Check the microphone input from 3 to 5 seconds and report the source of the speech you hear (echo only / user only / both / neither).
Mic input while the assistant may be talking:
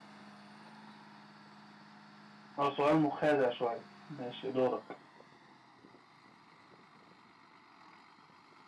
user only